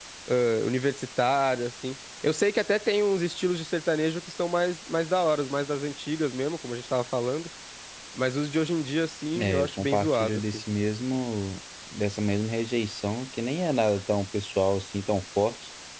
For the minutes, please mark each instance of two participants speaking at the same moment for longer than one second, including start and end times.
9.3-10.6

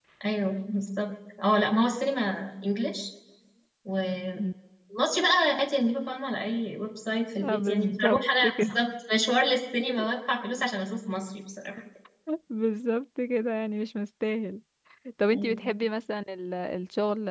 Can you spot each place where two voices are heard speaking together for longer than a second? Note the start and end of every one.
7.4-8.8

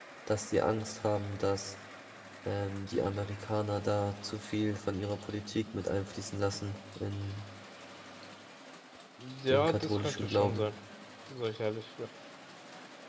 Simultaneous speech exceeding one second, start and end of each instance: 9.5-10.7

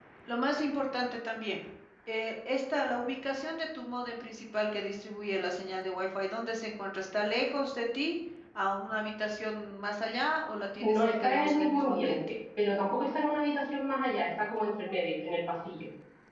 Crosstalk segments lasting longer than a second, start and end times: 10.8-12.2

